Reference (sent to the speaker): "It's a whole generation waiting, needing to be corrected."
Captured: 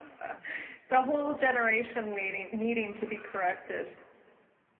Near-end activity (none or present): none